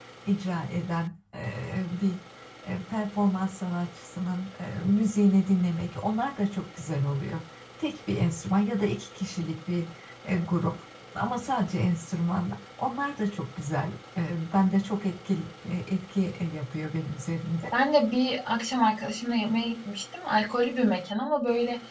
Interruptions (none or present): none